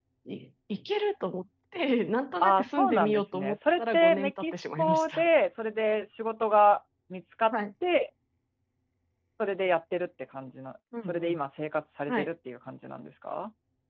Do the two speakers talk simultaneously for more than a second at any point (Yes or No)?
Yes